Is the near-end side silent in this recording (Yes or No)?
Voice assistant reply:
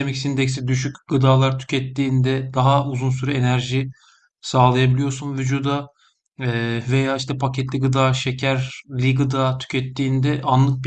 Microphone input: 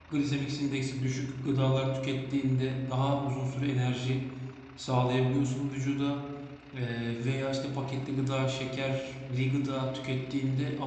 Yes